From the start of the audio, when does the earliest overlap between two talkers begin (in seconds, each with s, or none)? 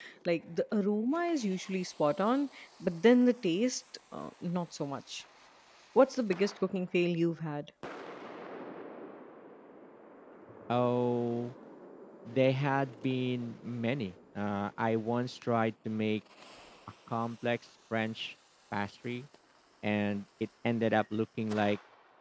none